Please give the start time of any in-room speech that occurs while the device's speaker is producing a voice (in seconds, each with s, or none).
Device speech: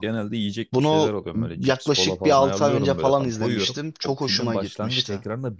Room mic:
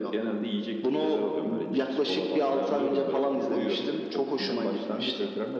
none